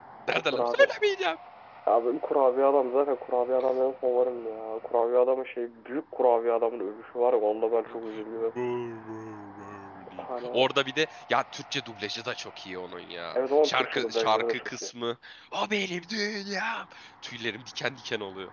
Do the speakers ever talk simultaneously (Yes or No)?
Yes